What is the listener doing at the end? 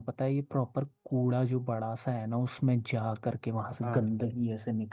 listening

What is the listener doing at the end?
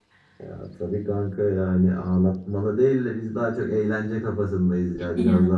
listening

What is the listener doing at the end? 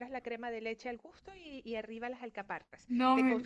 listening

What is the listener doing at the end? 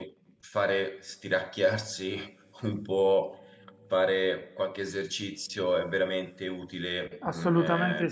taking over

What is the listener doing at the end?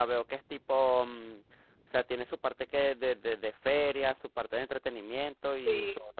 taking over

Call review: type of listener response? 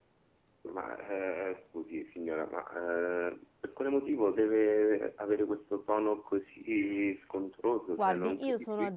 taking over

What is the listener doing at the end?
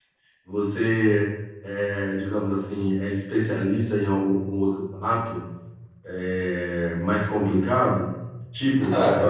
listening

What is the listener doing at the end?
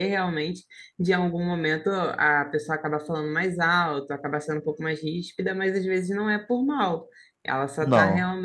listening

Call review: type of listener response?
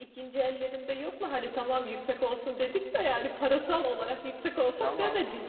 taking over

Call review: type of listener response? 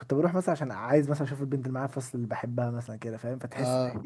listening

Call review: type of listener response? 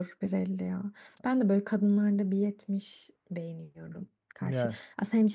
listening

